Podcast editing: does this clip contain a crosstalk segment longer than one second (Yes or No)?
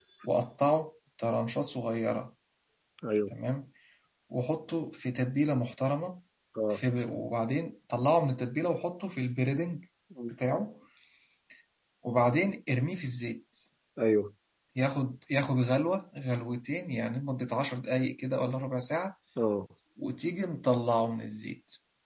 No